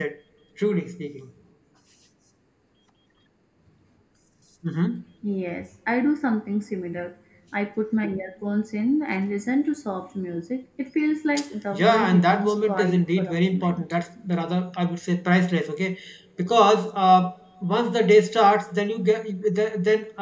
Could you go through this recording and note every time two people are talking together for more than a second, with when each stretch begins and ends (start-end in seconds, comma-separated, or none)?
11.7-13.8